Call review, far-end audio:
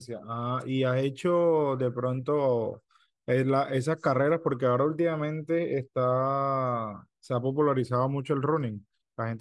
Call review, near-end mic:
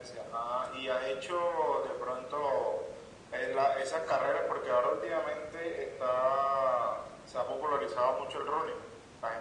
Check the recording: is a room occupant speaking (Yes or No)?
No